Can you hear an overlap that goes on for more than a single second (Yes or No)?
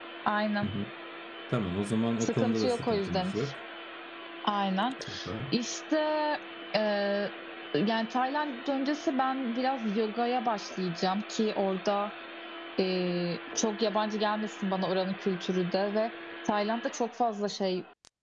Yes